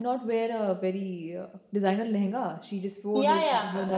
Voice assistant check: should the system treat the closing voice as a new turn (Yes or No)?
Yes